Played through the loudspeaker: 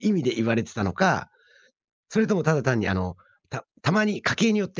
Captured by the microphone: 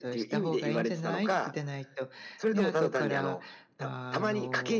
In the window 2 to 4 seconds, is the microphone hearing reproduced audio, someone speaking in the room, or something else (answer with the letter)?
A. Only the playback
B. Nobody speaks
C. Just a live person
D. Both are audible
D